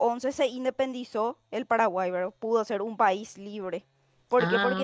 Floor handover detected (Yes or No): No